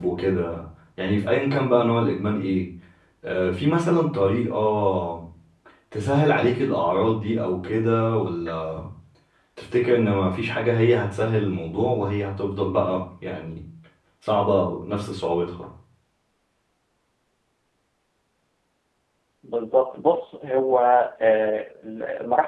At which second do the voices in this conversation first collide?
none

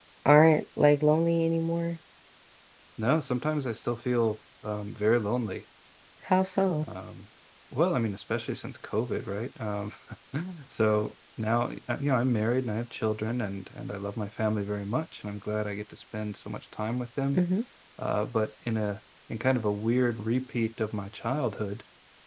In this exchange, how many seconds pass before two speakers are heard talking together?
none

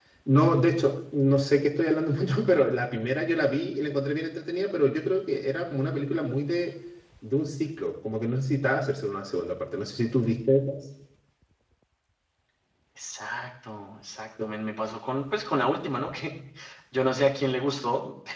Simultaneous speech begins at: none

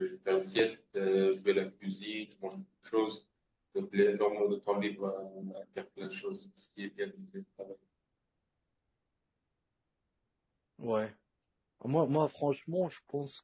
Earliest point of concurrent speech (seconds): none

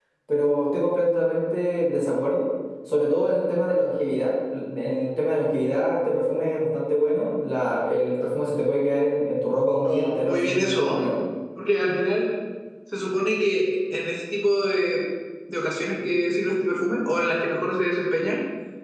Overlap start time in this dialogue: 9.8 s

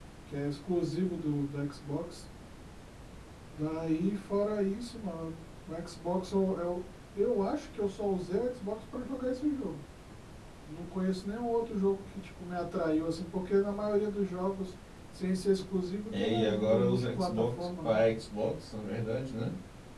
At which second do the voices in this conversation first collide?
16.1 s

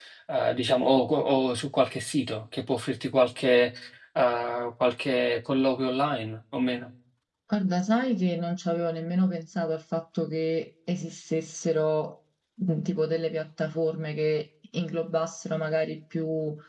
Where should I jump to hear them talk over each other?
none

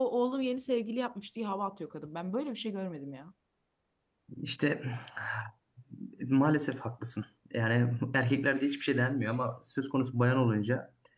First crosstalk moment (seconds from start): none

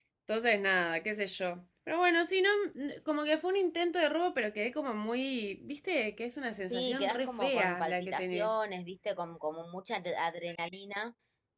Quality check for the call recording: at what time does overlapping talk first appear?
6.7 s

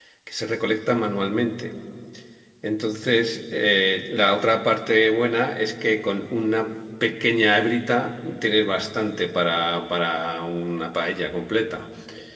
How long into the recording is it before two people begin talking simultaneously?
none

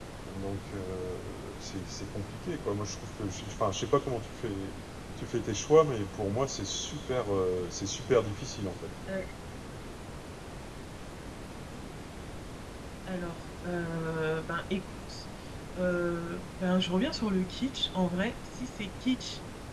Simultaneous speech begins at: none

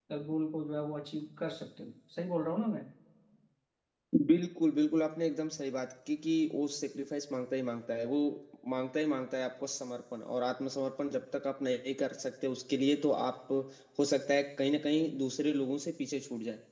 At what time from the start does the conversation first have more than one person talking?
none

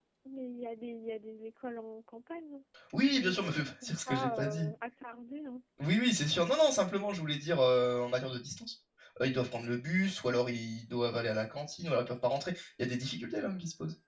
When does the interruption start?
3.1 s

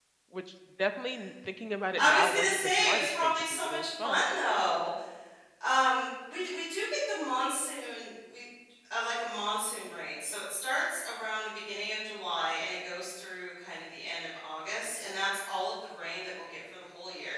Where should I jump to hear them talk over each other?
1.9 s

